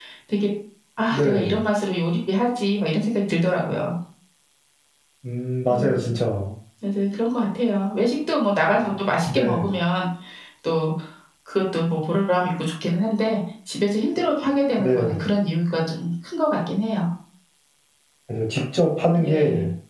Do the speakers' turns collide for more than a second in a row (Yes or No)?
No